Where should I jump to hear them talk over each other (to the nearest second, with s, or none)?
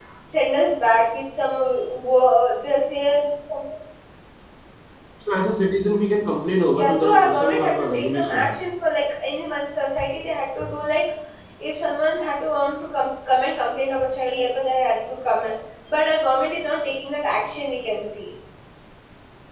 7 s